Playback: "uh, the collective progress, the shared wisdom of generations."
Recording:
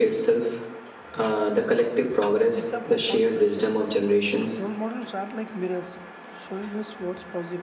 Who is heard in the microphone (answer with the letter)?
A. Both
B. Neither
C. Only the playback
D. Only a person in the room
A